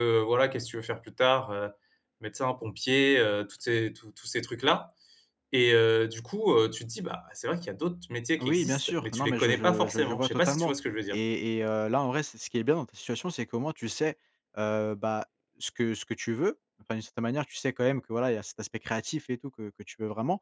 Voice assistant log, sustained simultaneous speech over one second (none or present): present